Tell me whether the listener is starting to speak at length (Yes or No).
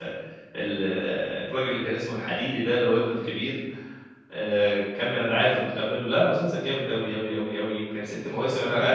No